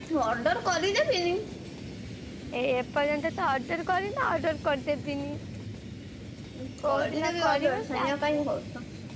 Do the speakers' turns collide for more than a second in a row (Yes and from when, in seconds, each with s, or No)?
Yes, from 6.9 s